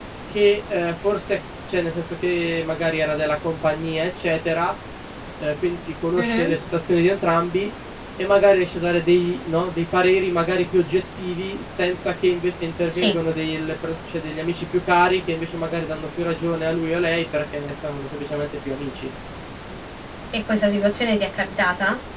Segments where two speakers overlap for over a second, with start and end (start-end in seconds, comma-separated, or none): none